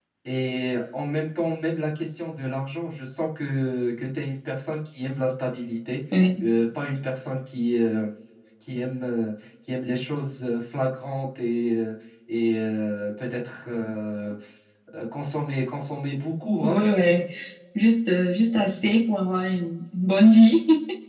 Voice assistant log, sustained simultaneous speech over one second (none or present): none